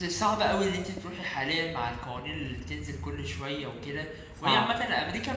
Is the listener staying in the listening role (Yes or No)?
Yes